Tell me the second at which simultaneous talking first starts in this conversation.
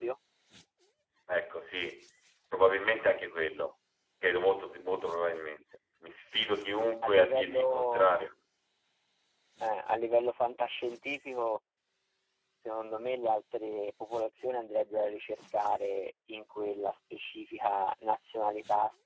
7.0 s

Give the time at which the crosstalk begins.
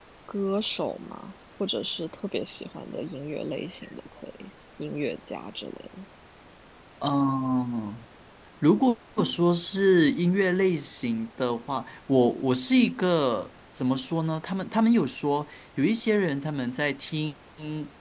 none

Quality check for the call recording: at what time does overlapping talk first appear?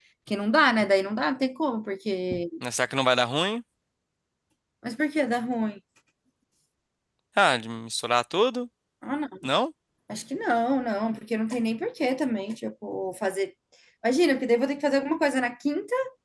none

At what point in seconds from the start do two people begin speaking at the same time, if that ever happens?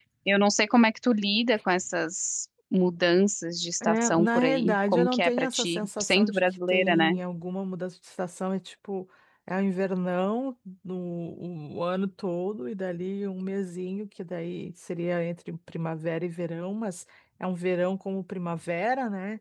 3.8 s

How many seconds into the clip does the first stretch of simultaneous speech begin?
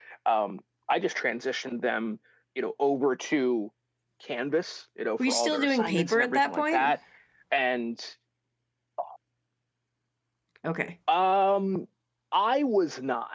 5.2 s

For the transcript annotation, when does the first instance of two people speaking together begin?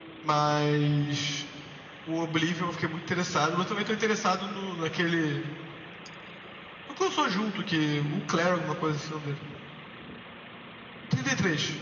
none

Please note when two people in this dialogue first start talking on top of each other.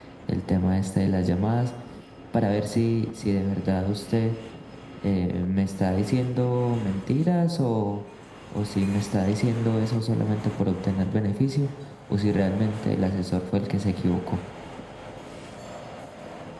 none

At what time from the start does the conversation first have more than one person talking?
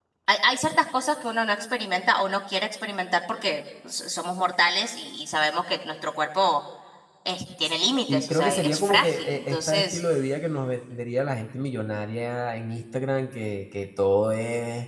8.1 s

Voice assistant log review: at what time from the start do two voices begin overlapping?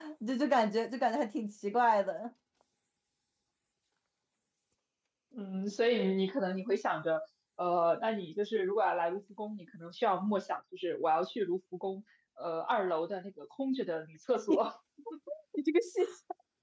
none

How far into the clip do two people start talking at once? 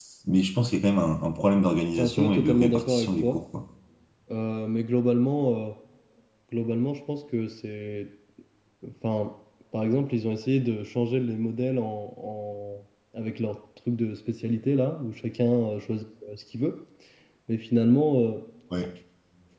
2.0 s

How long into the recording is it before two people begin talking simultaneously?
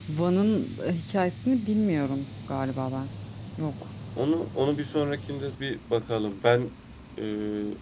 none

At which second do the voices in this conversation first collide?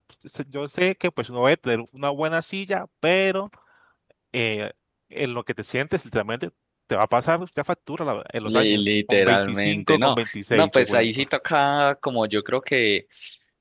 8.4 s

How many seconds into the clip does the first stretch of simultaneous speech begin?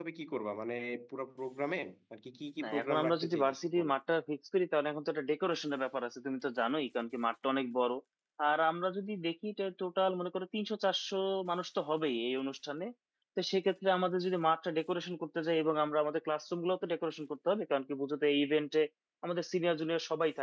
2.6 s

